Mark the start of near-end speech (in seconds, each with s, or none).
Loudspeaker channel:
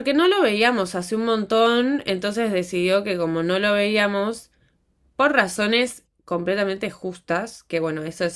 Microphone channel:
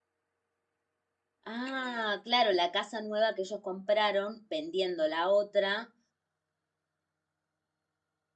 1.4 s